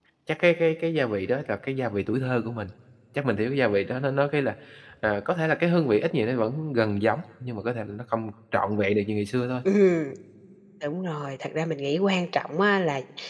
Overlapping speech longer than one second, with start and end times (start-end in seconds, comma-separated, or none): none